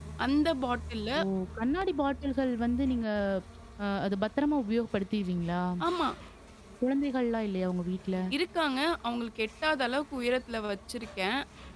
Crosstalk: none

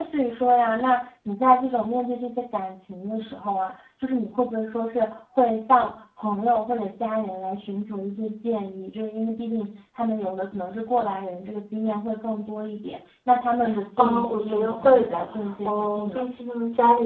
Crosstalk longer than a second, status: present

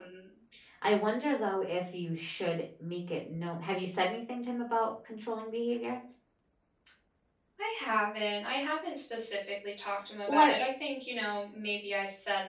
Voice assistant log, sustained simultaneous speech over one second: none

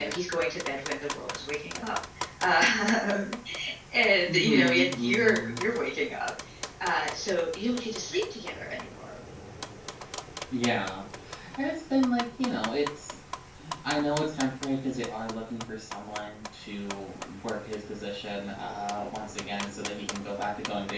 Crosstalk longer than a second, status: present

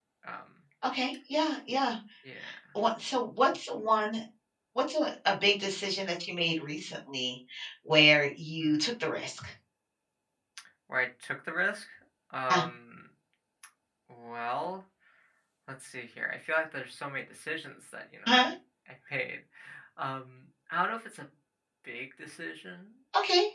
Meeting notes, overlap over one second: none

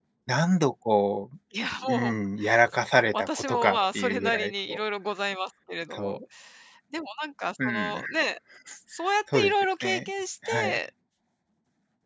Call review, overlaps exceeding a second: present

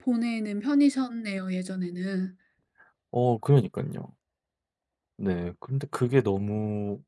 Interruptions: none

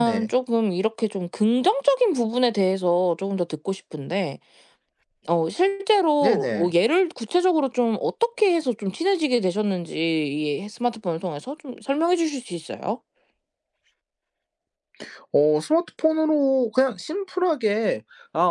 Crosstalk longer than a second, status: none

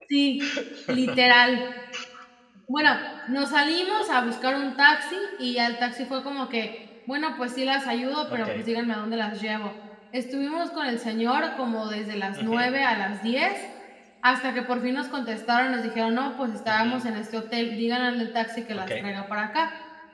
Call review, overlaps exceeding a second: none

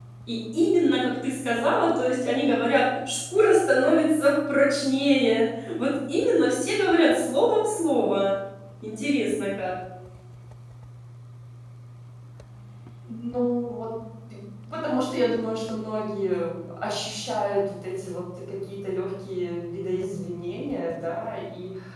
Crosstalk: none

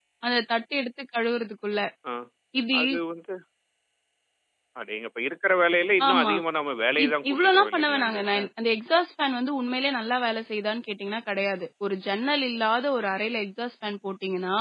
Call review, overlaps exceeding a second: present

